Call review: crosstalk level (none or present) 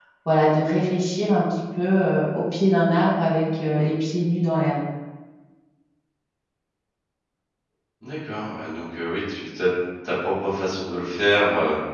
none